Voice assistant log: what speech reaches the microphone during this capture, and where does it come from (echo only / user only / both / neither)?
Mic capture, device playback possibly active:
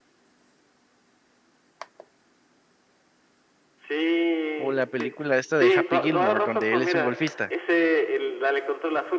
both